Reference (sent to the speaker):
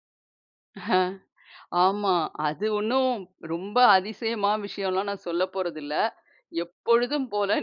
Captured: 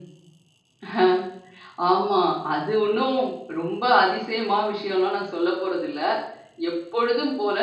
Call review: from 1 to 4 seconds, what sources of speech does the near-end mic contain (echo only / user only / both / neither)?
echo only